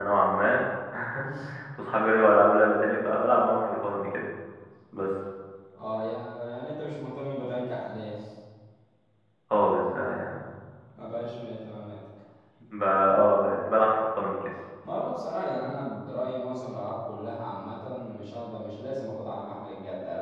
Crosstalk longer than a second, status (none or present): none